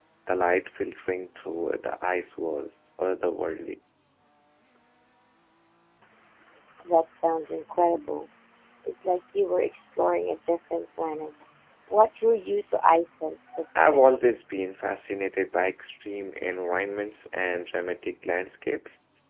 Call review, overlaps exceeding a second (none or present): none